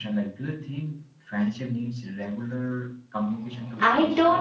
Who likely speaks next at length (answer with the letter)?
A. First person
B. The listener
B